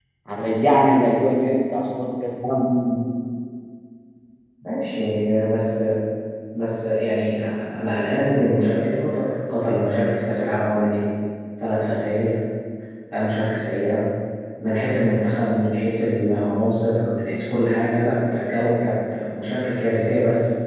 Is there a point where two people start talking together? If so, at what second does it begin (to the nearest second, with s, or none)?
none